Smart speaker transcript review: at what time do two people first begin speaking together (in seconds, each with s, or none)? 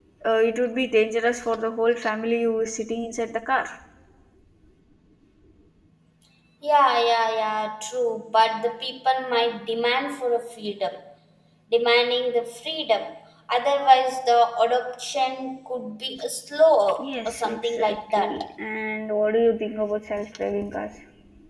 17.0 s